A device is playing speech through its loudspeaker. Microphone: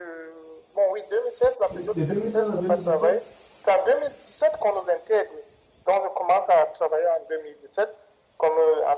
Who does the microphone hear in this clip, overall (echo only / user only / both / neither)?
both